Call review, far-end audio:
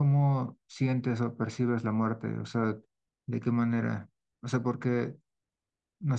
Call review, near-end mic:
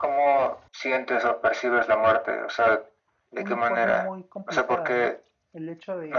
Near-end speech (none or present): present